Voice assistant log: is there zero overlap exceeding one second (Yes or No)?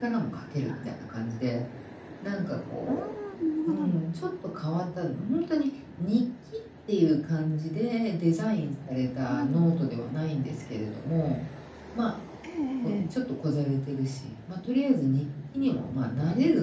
Yes